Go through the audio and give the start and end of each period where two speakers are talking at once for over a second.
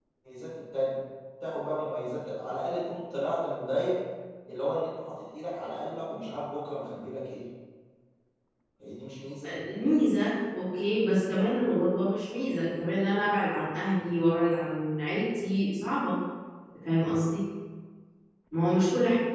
none

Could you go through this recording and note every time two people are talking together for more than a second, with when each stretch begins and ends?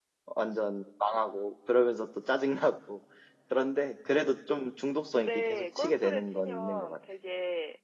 5.1-7.0

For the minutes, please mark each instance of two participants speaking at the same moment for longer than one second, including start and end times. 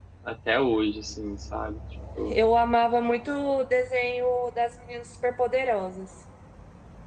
none

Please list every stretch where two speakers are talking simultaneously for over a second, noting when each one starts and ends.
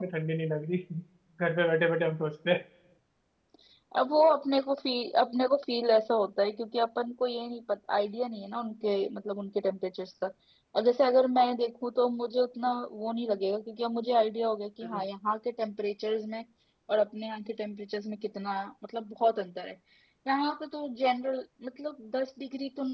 none

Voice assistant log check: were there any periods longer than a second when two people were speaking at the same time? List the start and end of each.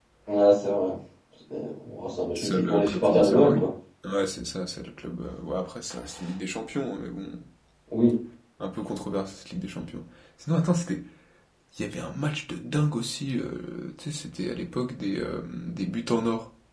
2.4-3.6

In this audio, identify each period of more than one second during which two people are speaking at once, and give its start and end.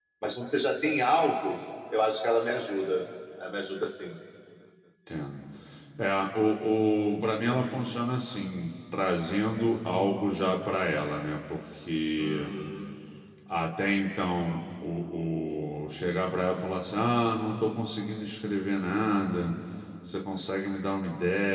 none

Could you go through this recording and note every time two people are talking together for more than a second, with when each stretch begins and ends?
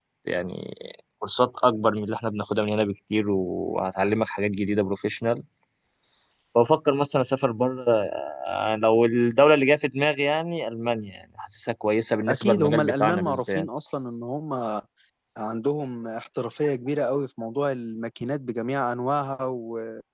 12.3-13.7

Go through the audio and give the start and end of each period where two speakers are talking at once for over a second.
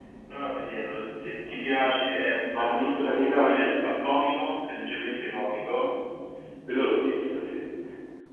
2.6-3.9

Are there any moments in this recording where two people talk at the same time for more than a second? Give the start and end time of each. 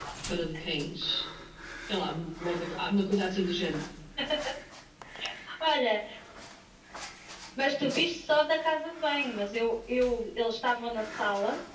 none

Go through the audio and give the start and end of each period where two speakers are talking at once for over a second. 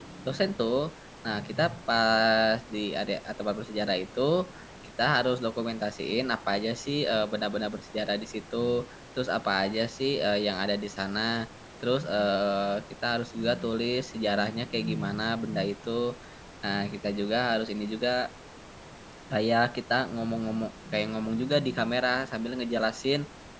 none

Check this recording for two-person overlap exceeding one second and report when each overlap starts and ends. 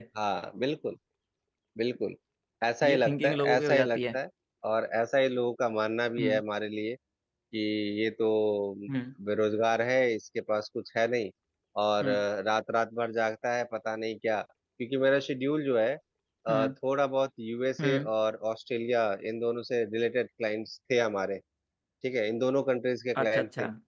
2.8-4.2

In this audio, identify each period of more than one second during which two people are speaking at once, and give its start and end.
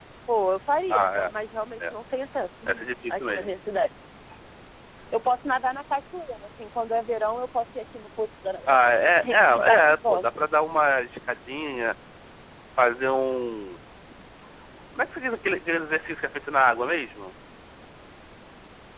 8.7-10.2

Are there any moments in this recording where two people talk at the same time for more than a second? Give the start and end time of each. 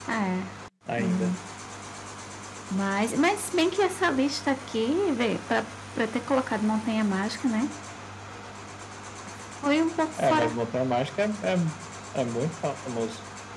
none

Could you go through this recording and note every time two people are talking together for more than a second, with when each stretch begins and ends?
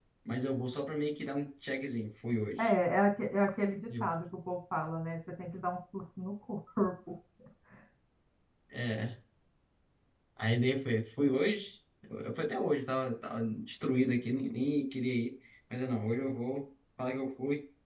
none

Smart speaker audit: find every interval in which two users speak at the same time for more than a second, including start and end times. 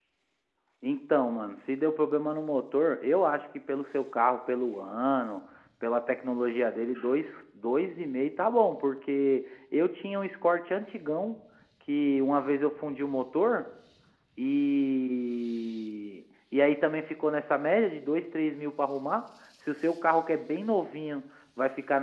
none

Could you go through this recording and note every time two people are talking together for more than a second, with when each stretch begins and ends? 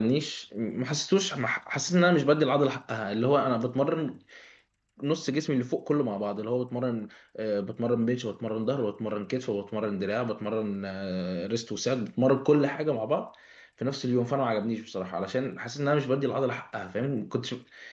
none

